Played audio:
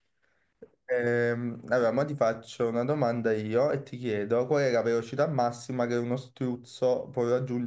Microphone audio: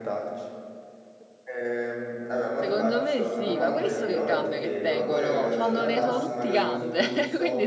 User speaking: Yes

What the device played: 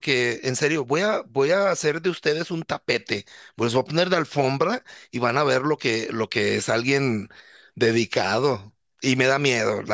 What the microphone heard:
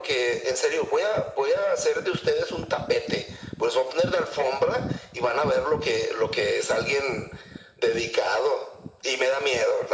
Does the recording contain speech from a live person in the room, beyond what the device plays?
No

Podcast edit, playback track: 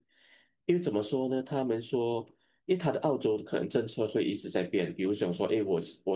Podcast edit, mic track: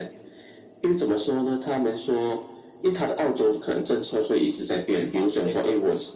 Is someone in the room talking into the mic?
Yes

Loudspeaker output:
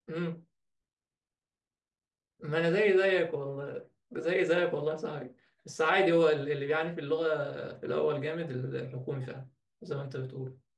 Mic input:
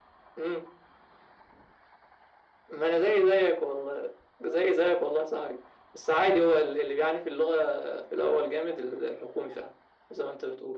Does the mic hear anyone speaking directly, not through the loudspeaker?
No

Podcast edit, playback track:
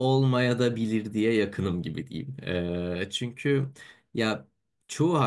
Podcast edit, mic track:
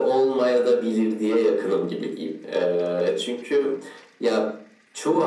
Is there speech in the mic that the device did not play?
No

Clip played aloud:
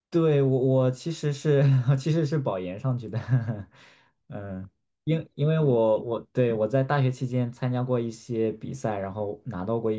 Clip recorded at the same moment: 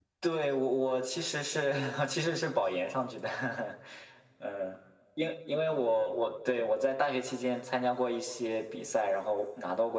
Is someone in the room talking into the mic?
No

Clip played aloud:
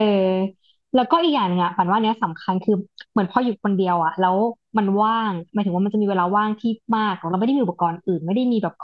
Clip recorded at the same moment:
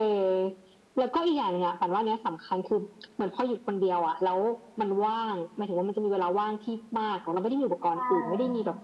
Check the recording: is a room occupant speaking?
Yes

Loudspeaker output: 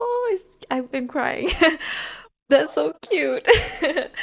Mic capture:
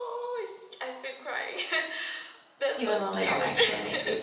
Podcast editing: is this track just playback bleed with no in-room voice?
No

